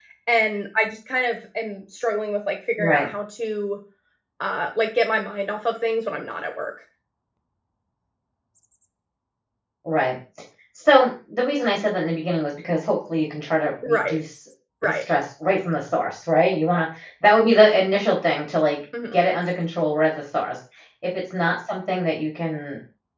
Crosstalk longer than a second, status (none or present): none